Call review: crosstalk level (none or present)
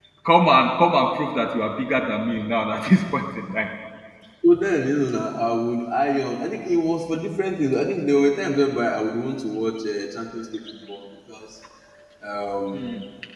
none